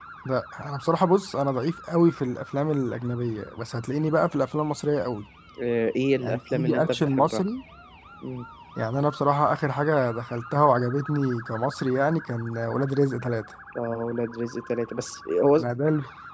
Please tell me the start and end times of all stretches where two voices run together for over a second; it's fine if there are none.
6.2-7.4

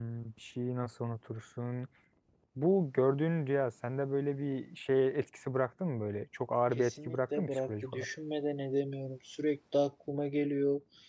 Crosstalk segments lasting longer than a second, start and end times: 6.7-8.1

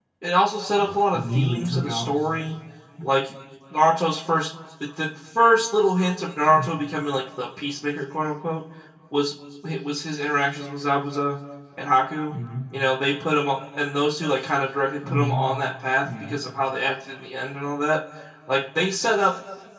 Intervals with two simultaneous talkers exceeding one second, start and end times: 0.8-2.1

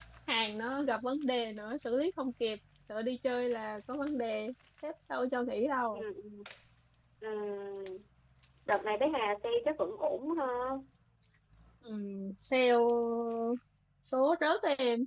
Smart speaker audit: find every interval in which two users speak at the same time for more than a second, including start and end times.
none

